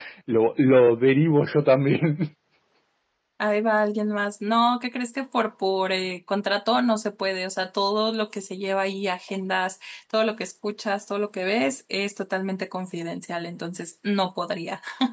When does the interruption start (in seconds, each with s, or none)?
none